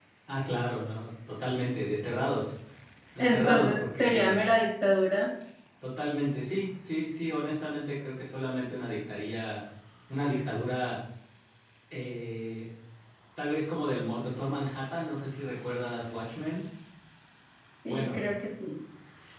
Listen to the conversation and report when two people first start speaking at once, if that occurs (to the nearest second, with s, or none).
3 s